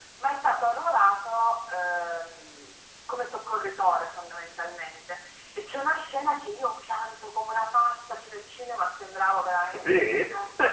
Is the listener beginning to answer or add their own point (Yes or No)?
No